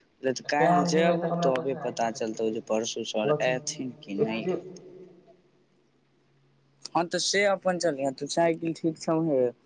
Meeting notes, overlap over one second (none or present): present